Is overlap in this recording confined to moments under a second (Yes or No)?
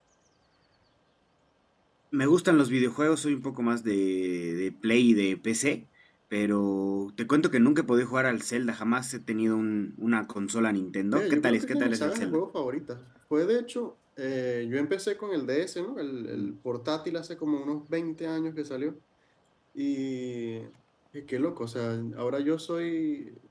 No